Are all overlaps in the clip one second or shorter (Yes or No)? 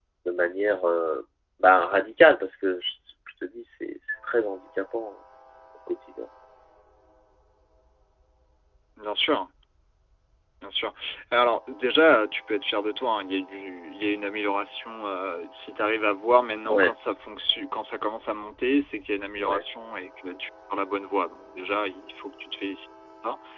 Yes